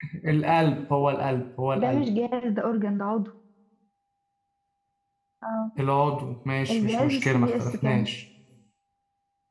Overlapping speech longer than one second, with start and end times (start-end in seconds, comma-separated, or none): 6.7-8.1